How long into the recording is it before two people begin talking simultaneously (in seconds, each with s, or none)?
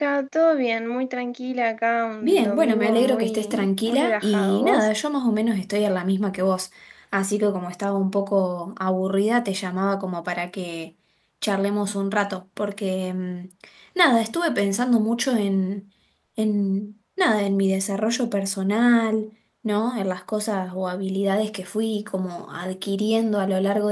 2.2 s